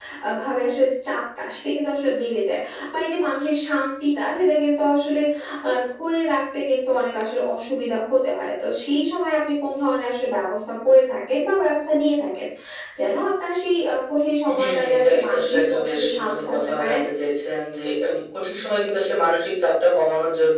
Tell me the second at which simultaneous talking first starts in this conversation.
14.4 s

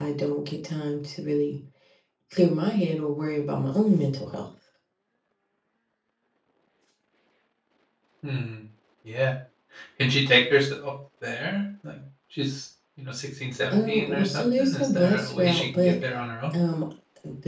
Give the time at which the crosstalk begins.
13.7 s

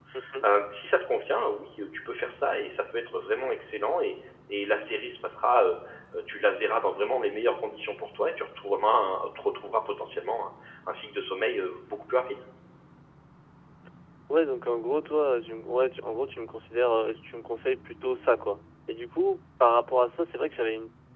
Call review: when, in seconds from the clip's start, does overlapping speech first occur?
none

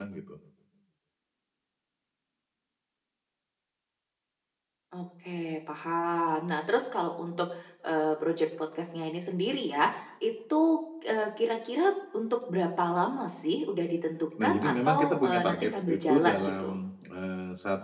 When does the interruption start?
14.4 s

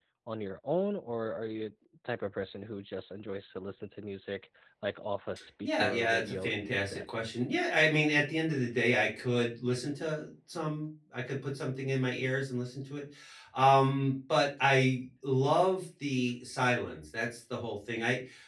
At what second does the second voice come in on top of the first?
5.6 s

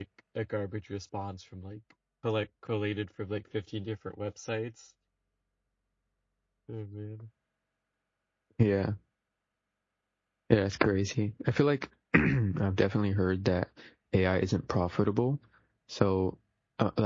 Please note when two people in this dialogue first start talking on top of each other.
none

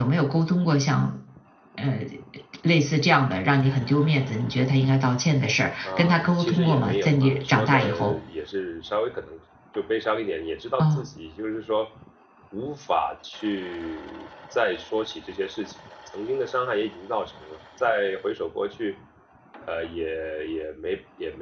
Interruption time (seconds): 5.8 s

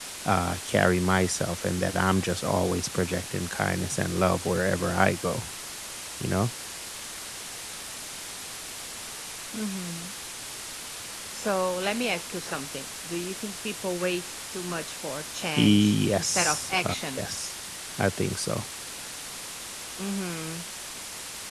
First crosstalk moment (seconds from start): 15.6 s

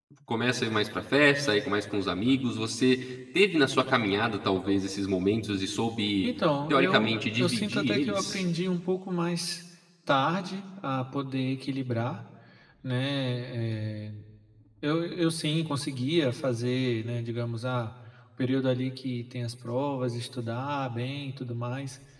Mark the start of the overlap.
6.7 s

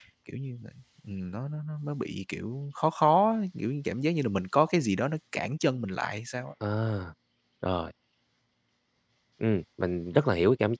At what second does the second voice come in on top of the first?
none

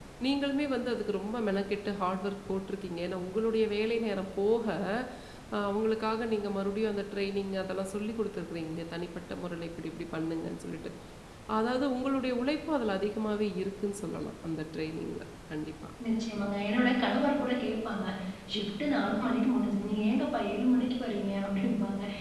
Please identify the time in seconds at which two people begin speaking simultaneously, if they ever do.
none

